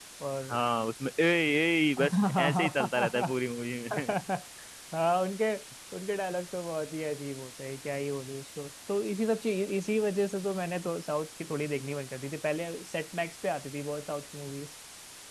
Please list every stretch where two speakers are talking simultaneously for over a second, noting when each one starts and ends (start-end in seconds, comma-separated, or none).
2.0-3.3